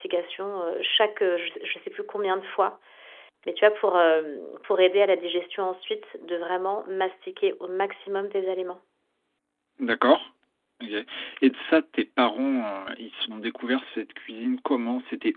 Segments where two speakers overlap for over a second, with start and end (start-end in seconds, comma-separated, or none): none